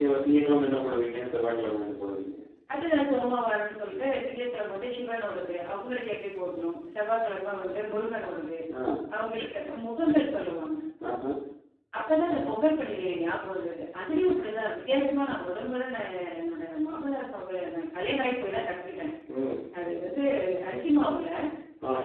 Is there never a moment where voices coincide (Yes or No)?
Yes